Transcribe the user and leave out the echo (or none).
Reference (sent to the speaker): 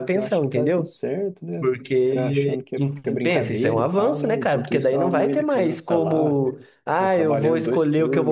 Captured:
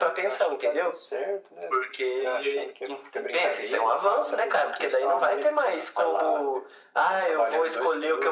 none